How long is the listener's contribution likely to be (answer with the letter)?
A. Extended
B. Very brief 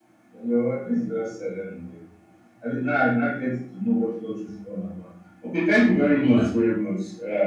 B